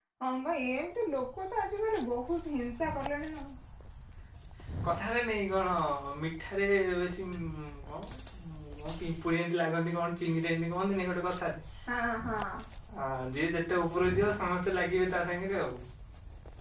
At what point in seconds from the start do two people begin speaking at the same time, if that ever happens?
none

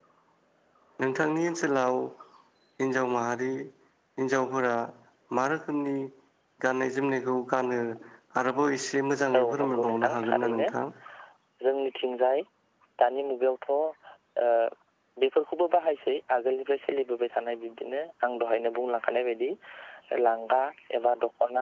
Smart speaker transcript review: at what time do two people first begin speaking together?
9.3 s

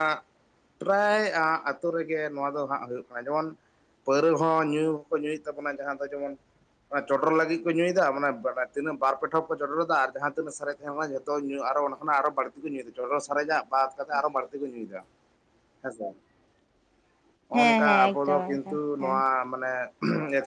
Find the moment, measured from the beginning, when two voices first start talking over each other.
17.5 s

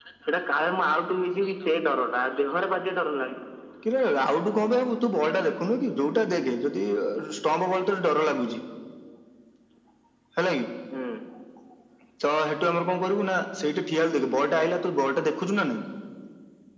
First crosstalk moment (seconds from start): none

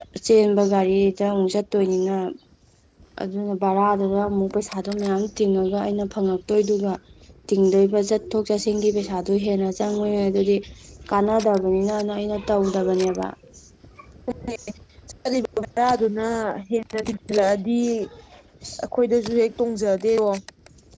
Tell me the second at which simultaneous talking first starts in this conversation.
none

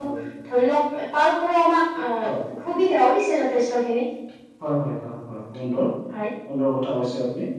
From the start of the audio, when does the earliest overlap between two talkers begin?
none

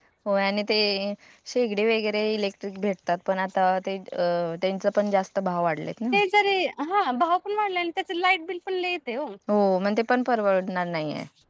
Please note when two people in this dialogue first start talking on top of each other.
none

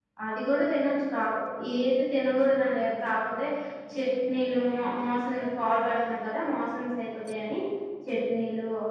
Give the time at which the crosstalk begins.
none

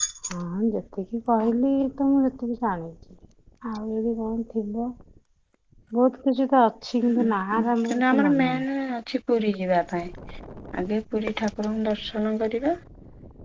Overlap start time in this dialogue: 7.0 s

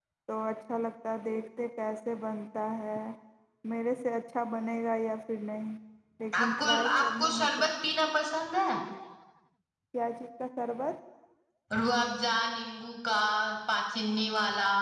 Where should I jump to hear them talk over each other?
6.4 s

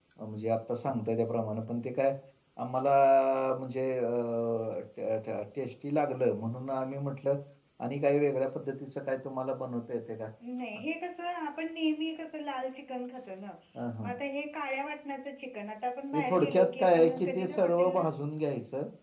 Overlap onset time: 16.1 s

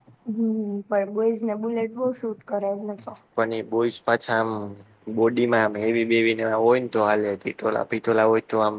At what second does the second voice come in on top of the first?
none

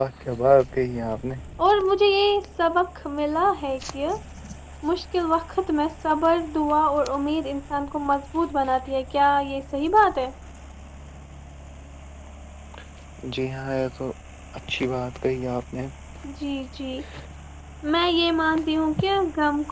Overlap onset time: none

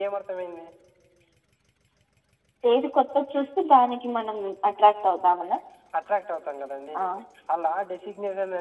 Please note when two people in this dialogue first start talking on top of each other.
none

